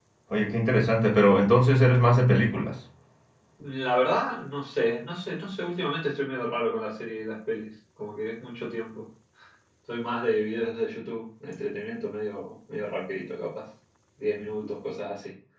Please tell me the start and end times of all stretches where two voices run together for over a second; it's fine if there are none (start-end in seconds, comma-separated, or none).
none